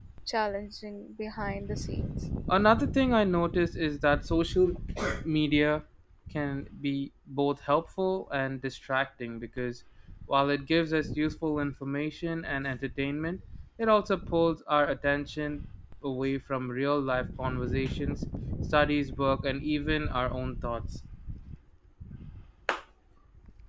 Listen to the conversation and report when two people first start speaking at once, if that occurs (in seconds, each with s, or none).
none